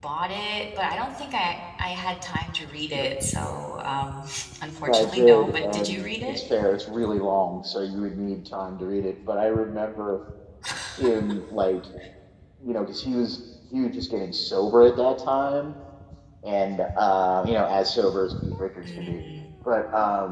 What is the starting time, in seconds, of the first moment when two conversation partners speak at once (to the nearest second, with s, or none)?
5 s